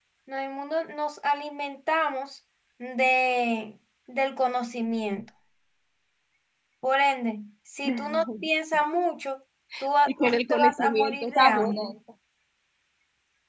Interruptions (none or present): present